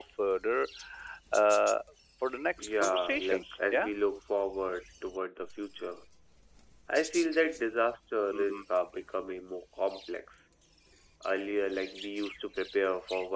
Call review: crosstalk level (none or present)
present